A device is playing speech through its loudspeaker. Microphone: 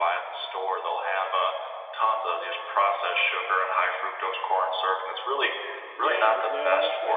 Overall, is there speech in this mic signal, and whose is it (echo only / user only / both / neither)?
both